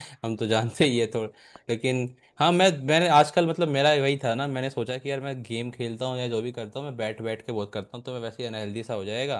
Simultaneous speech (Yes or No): No